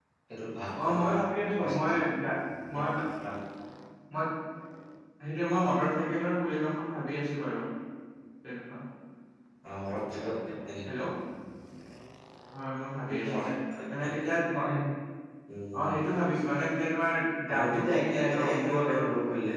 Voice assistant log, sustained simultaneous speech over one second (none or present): present